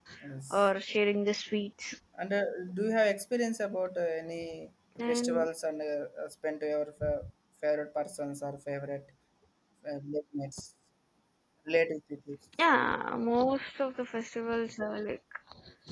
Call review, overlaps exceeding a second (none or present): none